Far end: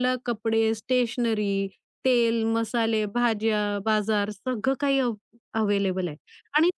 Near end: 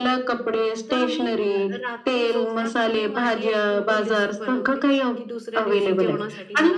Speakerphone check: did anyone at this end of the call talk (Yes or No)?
Yes